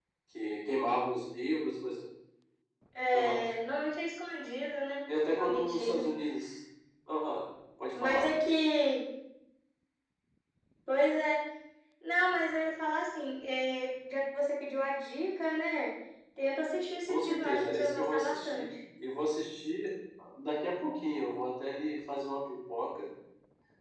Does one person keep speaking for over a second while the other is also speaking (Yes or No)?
Yes